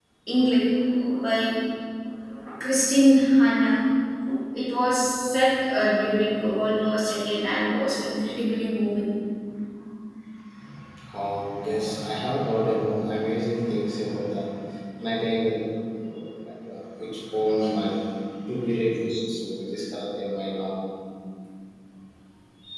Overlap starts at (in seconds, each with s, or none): none